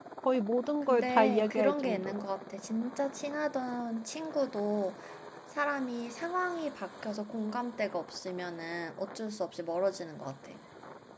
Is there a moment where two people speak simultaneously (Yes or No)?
Yes